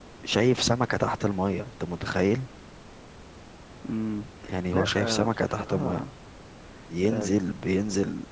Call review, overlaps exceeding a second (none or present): present